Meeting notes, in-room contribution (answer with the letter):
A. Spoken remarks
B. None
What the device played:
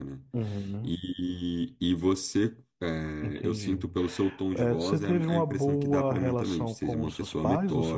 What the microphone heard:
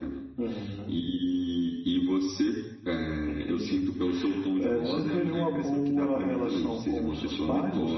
B